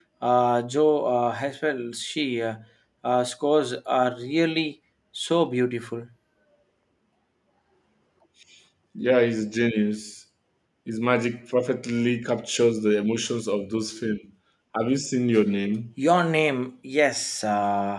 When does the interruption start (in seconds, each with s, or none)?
none